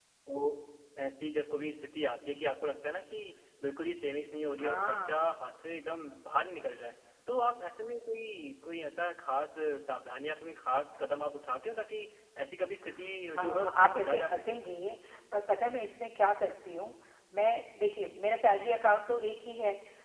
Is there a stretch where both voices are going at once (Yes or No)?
Yes